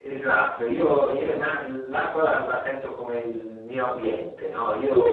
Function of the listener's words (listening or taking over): taking over